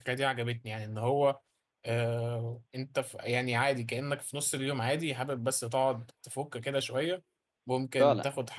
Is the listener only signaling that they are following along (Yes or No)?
Yes